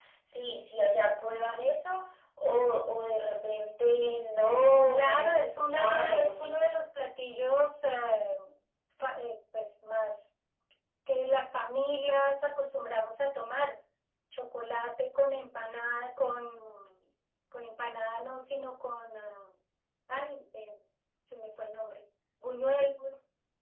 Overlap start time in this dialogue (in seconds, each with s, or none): 4.9 s